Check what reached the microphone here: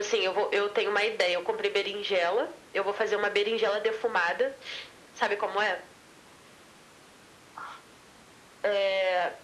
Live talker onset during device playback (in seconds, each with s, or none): none